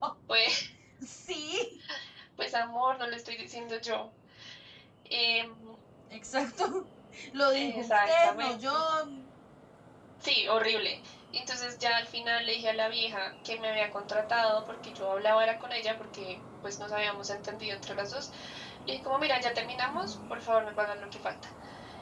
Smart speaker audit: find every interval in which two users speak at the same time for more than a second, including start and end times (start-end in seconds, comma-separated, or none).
7.5-8.8